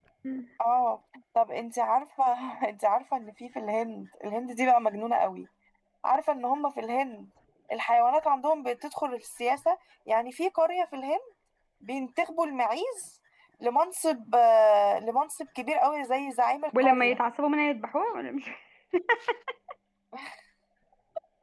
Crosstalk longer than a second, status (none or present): none